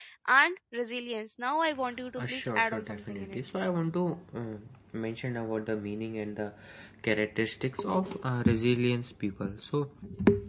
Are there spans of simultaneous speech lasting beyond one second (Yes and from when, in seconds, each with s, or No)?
Yes, from 2.2 s